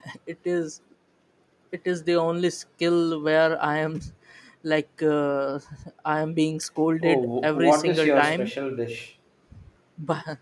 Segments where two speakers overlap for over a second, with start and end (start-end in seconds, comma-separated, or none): 7.0-8.5